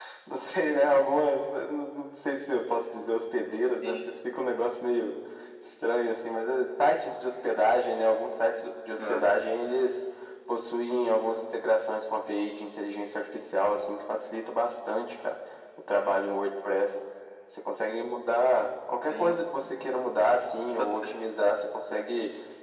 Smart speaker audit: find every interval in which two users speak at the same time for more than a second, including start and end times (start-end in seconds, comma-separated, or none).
none